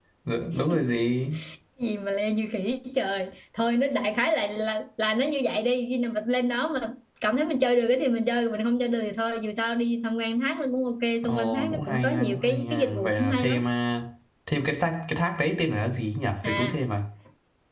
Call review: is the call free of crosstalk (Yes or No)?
No